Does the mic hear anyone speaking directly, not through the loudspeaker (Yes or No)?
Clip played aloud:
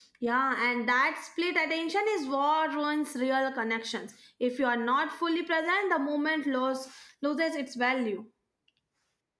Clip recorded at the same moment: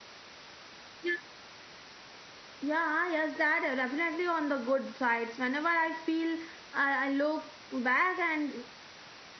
Yes